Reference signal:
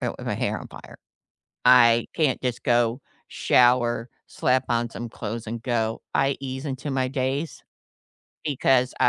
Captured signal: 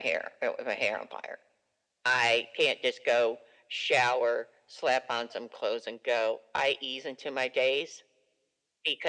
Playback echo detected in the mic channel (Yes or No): Yes